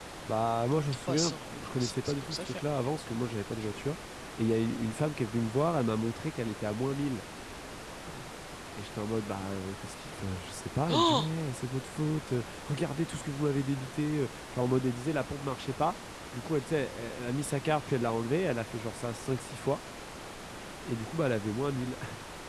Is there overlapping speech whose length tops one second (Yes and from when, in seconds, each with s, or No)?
Yes, from 1.1 s